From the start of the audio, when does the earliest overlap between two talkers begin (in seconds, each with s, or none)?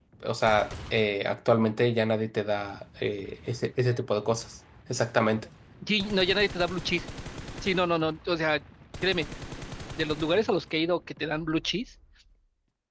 none